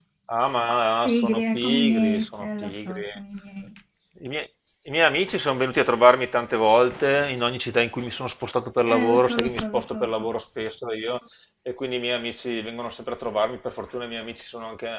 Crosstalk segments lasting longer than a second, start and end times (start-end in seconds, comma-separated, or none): 1.1-3.0, 8.9-10.3